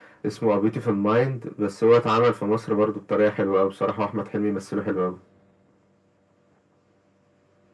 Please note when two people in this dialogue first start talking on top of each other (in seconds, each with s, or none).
none